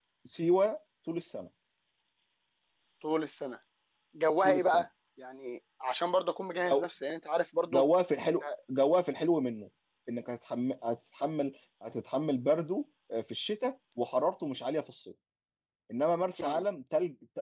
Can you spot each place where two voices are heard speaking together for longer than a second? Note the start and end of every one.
none

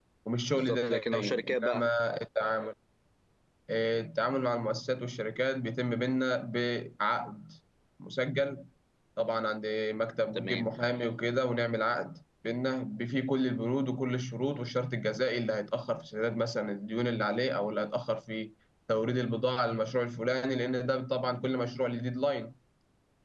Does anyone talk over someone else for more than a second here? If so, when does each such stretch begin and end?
0.5-1.8

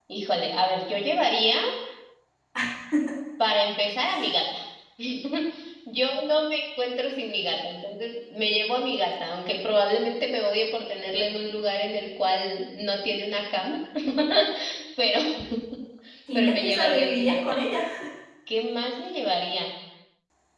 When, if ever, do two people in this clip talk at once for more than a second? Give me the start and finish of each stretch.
16.3-17.6

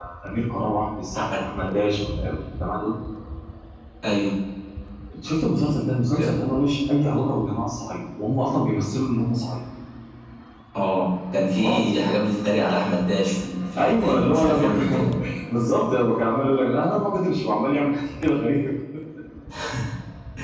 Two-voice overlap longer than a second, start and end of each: 13.8-15.1

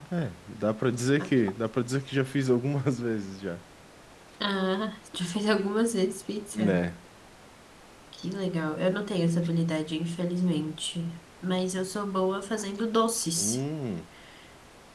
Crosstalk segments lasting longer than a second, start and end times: none

